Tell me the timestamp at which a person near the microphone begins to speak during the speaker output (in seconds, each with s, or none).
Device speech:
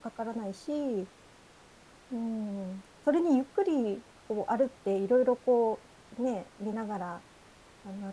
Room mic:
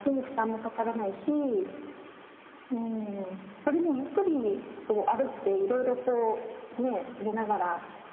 none